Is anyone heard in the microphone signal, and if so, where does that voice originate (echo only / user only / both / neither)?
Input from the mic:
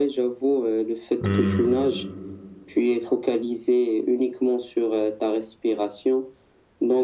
both